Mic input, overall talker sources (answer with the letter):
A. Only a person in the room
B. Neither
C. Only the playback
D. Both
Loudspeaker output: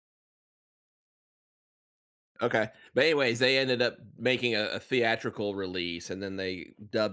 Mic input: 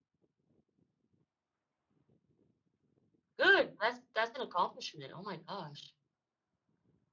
A